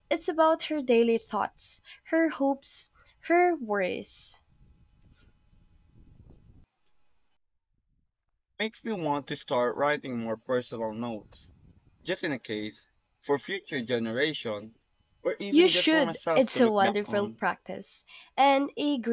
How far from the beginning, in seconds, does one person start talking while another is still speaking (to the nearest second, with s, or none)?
16 s